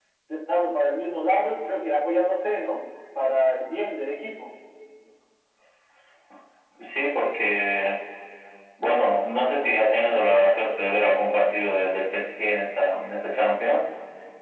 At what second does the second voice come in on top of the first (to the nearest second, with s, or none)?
none